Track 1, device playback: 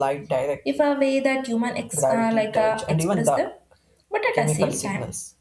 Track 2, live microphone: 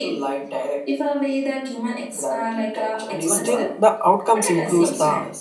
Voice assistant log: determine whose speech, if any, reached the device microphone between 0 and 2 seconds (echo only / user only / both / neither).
echo only